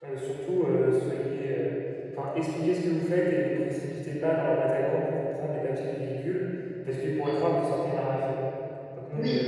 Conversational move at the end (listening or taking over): listening